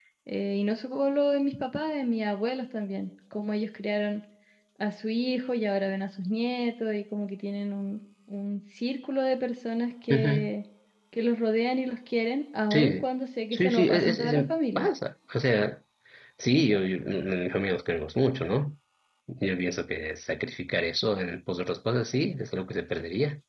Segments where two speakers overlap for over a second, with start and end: 13.5-14.9

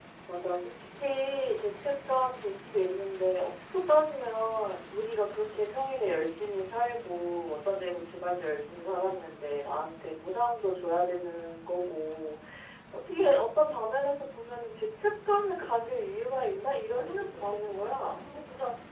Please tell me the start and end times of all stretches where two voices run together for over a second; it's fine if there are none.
16.9-18.2

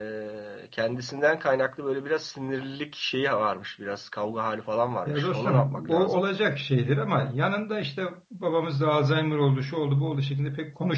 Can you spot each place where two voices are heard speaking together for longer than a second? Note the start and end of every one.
5.0-6.3

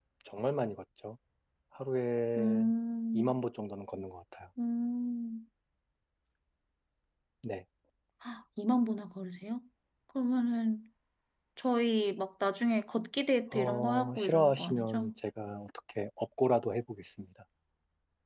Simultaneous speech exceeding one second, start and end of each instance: 13.5-15.1

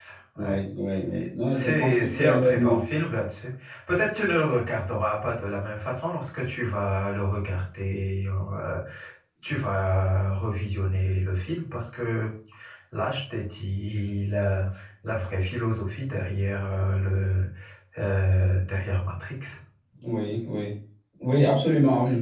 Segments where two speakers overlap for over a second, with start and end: 1.1-2.8

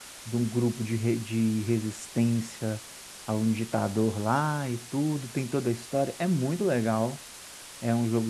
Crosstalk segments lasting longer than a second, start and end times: none

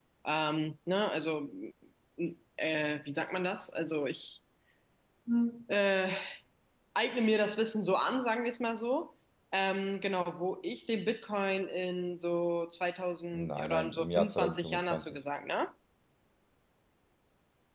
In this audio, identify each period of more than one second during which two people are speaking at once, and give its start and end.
13.3-15.2

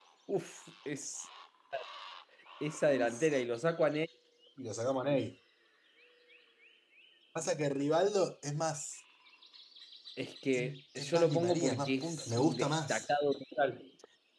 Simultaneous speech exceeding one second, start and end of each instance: 10.5-13.1

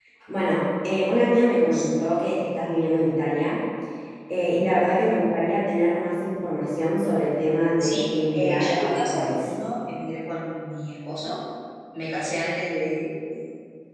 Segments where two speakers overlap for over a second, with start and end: 7.8-9.5

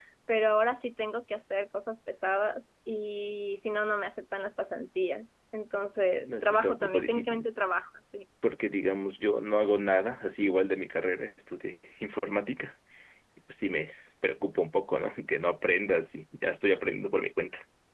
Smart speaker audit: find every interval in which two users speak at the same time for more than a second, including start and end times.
6.2-7.5

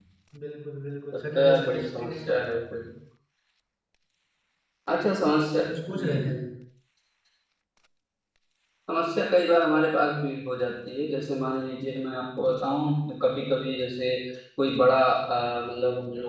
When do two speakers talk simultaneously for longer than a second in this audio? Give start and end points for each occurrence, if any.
1.1-2.4

